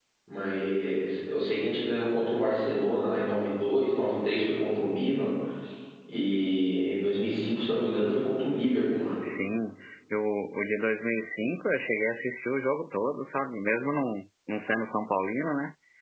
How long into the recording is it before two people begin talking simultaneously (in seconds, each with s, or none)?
none